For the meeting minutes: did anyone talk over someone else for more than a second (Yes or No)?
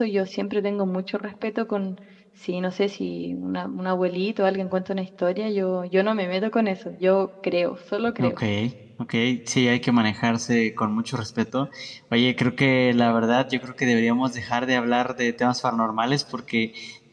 No